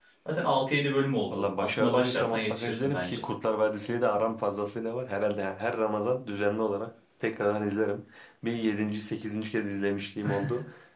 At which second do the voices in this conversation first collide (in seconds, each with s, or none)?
1.3 s